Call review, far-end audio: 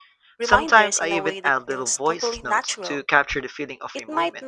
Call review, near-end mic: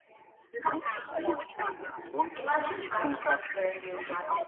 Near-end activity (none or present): present